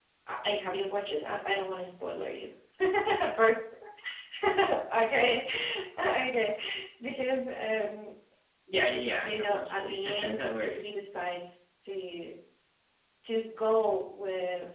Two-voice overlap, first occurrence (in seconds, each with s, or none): 9.1 s